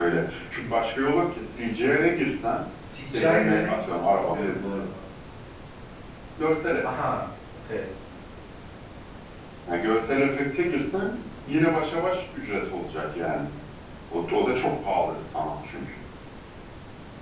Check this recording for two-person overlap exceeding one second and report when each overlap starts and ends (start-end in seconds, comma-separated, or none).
3.1-4.8